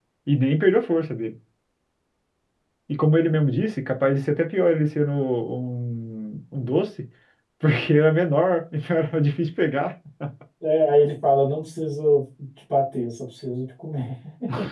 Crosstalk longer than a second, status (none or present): none